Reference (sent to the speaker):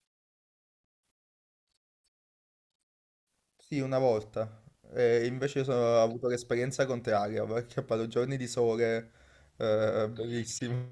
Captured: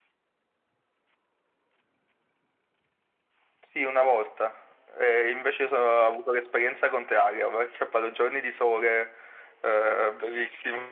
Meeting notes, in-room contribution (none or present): none